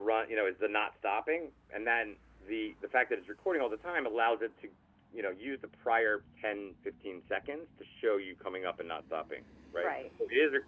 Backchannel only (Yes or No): Yes